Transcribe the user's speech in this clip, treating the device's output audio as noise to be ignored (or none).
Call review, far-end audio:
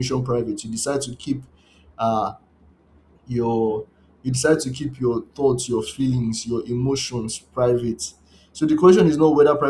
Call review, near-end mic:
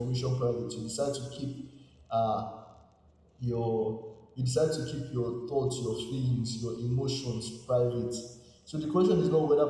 none